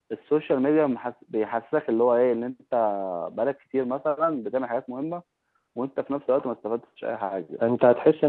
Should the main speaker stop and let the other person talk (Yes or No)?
Yes